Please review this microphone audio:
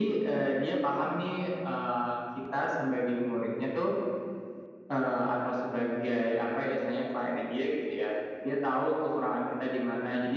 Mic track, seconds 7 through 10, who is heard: echo only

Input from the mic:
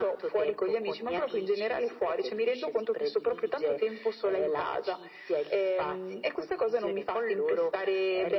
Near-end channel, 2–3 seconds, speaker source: echo only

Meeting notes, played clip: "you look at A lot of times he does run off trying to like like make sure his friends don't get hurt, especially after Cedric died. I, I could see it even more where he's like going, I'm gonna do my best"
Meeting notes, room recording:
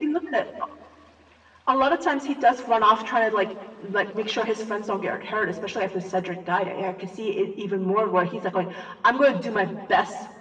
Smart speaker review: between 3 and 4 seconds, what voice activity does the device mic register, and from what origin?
echo only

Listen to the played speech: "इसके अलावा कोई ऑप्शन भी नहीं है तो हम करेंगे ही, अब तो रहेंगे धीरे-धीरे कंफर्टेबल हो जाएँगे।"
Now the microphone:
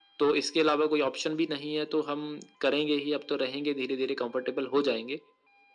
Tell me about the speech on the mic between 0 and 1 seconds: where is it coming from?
echo only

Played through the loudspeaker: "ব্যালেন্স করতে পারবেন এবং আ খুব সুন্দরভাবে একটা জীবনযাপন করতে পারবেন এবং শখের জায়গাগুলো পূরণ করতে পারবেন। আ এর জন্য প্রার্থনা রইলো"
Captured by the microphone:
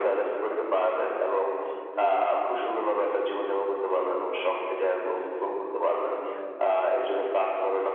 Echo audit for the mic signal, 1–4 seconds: both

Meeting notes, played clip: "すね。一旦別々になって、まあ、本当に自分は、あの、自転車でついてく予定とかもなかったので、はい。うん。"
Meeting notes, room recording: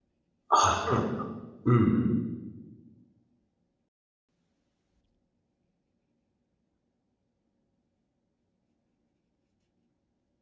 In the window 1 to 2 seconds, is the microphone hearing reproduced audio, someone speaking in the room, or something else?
user only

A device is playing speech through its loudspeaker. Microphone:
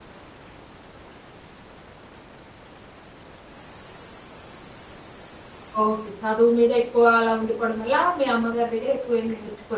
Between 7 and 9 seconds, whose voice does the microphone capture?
user only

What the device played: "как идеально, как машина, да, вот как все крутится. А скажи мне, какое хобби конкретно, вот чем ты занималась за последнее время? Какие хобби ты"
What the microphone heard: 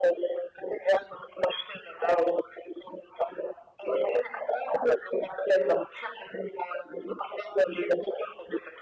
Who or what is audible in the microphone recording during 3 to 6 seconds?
echo only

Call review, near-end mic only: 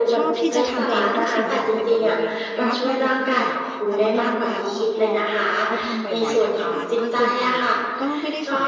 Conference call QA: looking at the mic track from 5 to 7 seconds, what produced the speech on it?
both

